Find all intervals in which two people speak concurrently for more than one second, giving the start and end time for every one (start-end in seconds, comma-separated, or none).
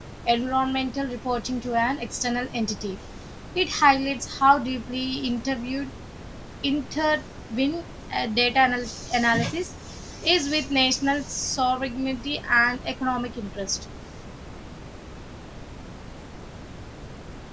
none